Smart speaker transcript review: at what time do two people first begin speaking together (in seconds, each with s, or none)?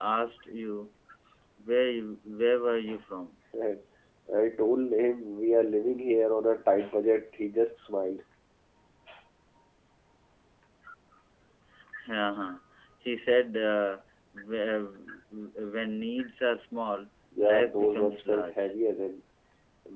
17.3 s